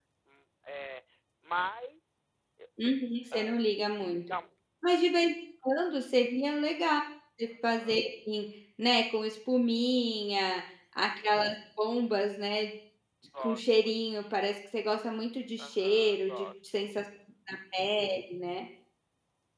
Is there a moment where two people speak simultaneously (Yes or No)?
Yes